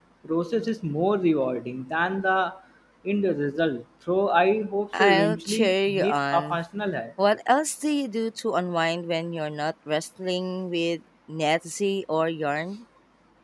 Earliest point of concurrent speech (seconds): 5 s

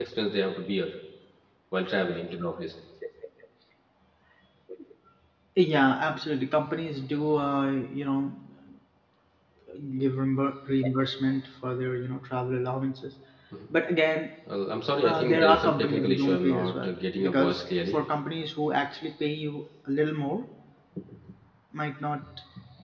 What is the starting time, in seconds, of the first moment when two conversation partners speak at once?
15 s

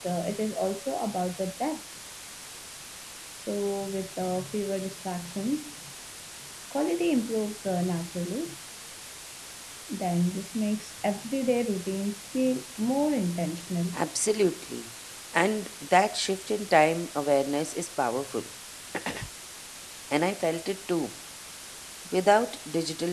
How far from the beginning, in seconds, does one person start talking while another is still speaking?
none

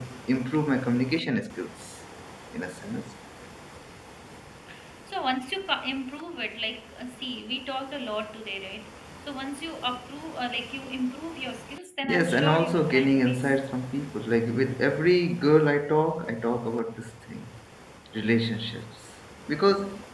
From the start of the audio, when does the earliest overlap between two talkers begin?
12 s

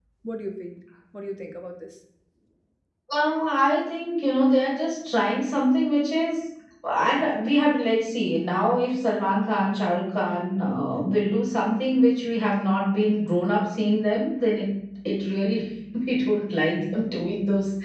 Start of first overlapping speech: none

